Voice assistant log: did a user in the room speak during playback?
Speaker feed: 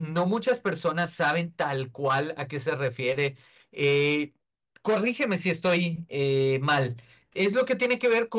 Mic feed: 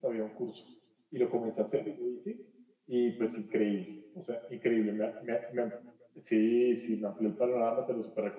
Yes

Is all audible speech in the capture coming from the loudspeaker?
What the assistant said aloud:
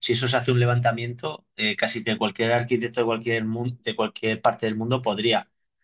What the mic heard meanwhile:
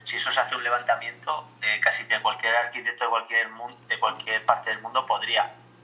Yes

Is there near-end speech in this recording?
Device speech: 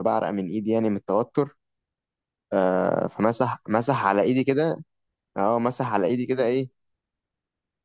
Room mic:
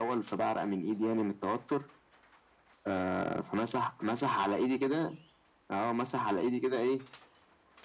No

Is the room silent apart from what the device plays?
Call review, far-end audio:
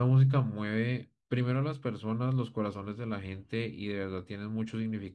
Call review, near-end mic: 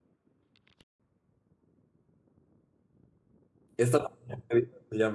No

